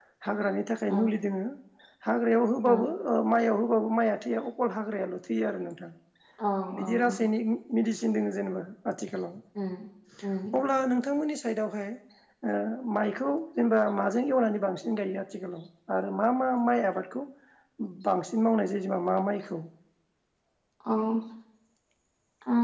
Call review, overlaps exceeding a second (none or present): none